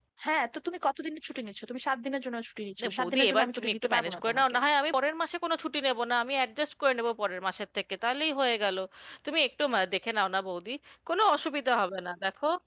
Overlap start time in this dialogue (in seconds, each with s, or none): 2.8 s